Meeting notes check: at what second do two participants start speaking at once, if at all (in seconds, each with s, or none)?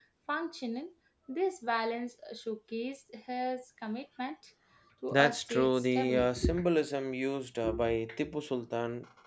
5.1 s